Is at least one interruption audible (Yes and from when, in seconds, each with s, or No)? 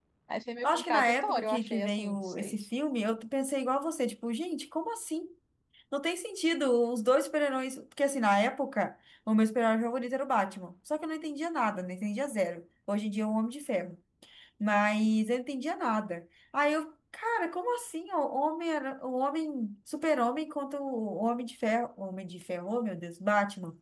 Yes, from 0.6 s